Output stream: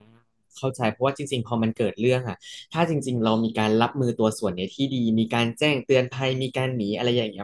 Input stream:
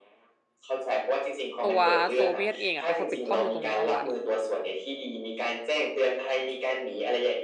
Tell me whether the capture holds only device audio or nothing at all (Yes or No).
No